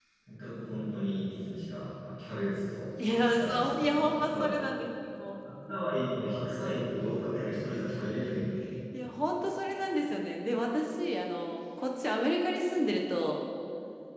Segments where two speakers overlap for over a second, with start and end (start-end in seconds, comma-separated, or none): 3.0-4.5